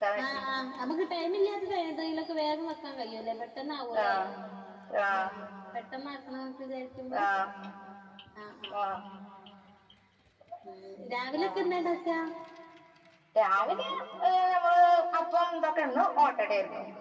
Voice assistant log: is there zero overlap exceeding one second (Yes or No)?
Yes